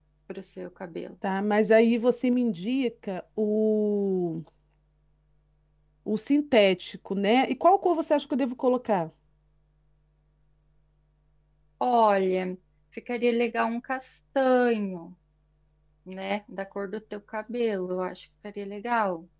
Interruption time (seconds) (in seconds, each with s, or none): none